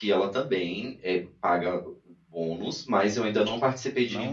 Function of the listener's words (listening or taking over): taking over